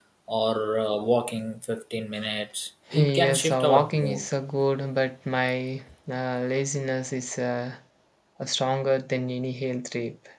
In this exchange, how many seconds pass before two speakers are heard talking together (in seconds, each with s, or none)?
2.9 s